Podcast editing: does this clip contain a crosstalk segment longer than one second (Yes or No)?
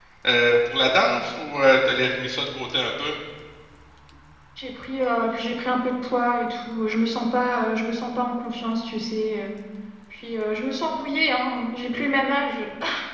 No